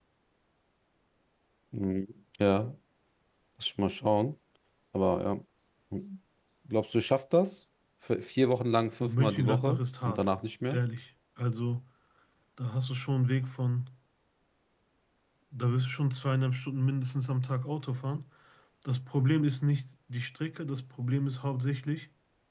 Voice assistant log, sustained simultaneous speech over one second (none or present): present